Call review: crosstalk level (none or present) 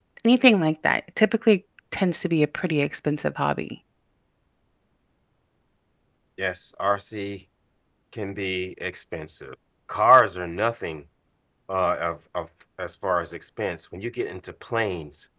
none